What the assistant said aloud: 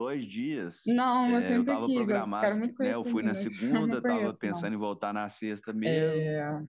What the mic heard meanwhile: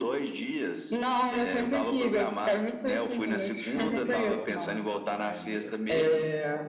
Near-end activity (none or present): present